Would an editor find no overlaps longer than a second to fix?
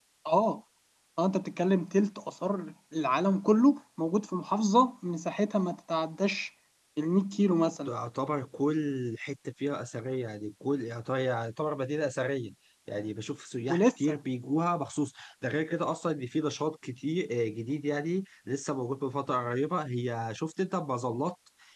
Yes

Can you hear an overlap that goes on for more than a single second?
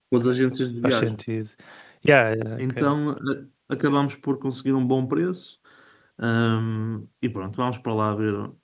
No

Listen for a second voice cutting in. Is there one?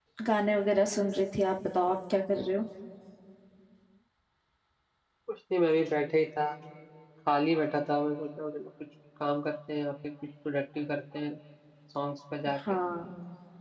No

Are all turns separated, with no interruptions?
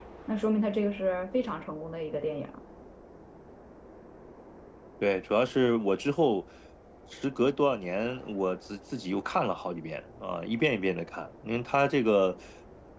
Yes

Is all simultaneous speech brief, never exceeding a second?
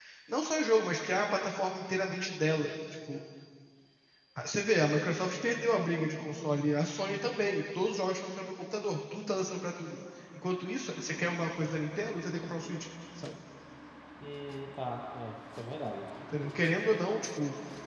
Yes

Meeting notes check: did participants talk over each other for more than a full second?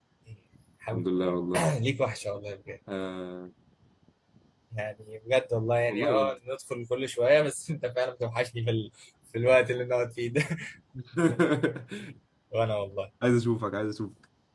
No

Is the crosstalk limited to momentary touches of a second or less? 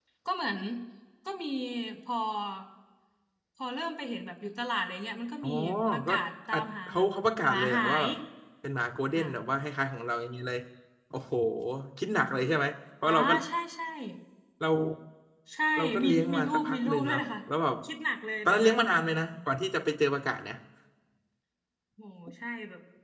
No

